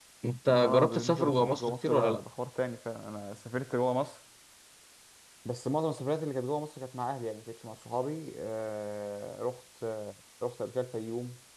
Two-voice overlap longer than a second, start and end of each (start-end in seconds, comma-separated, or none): 0.5-2.2